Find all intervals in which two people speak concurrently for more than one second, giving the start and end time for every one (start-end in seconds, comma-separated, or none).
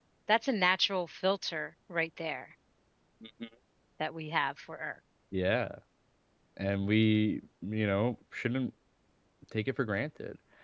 none